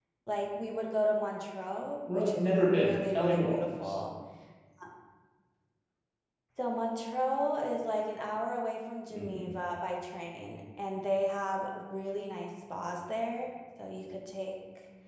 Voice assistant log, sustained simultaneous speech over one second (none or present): present